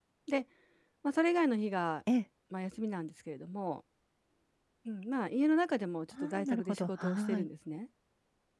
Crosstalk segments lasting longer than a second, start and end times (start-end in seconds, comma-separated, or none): 6.2-7.5